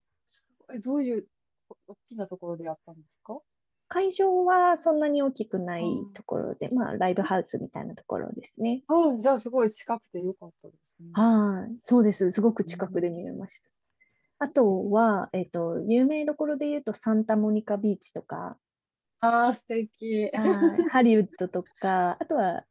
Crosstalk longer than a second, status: none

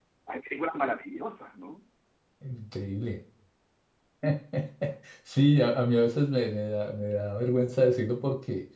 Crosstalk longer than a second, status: none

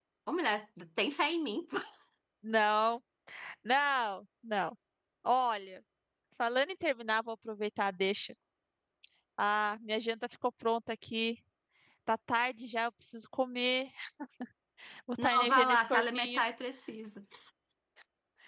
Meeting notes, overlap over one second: present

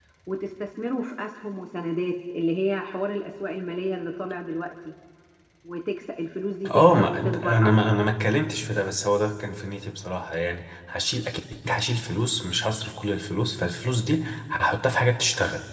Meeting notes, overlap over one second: present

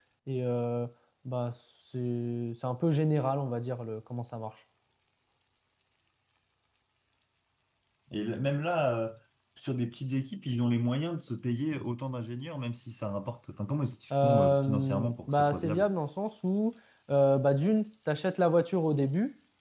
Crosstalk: present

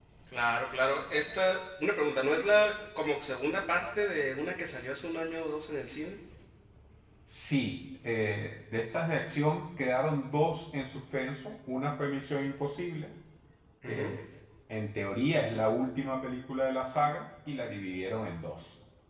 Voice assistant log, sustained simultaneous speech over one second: none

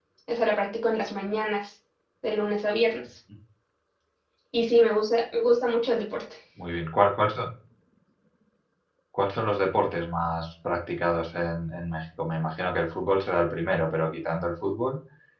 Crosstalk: none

